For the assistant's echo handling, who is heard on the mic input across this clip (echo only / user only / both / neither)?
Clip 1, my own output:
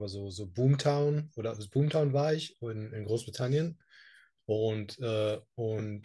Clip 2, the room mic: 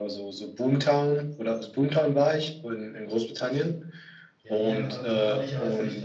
both